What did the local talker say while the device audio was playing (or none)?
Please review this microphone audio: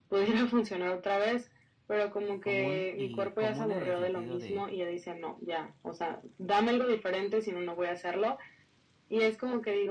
común y común en el sentido de